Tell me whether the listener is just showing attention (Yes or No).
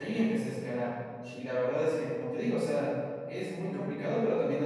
Yes